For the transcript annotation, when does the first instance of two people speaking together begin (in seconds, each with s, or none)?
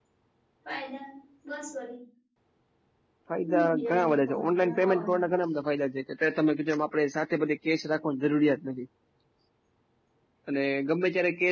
3.5 s